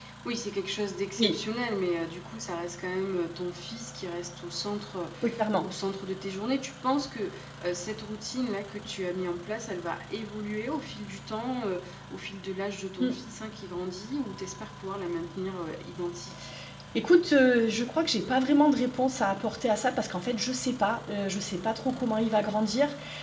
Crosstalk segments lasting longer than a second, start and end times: none

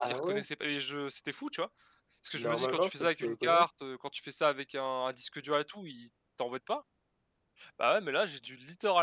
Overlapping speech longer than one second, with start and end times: 2.4-3.6

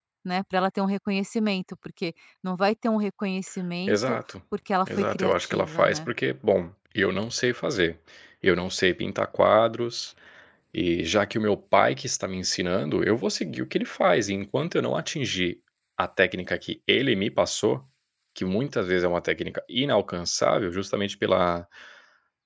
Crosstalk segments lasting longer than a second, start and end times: 4.9-6.1

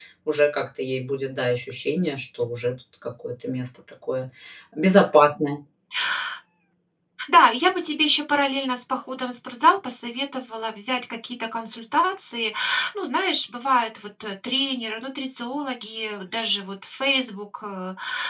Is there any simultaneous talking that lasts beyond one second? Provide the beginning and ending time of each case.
none

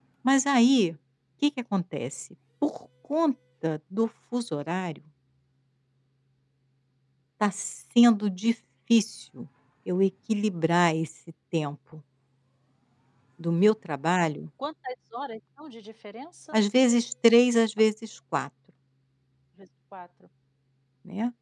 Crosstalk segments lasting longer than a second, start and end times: none

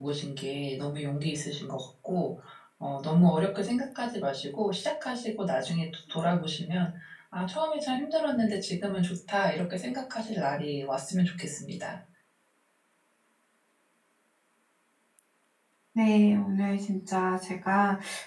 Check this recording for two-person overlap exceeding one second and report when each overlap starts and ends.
none

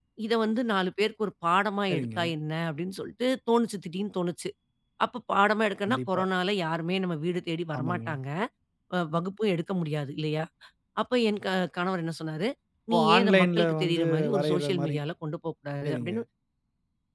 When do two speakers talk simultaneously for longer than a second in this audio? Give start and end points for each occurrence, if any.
12.9-15.0

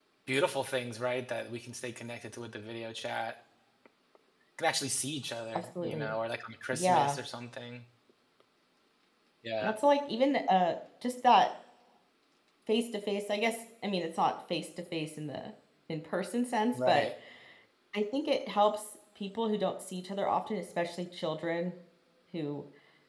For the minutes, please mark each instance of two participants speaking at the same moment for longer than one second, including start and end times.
none

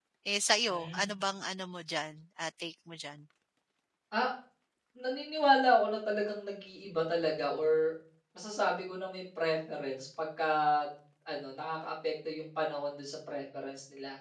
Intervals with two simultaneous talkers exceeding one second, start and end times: none

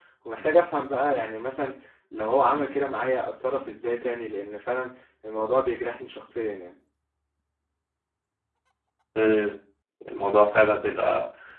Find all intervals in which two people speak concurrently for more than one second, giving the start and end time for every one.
none

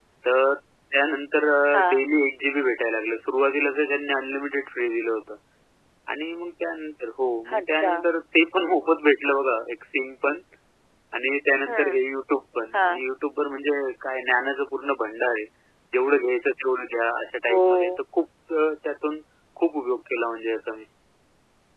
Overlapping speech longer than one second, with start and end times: none

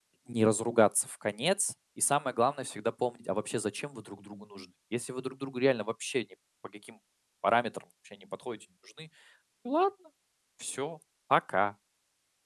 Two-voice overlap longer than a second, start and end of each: none

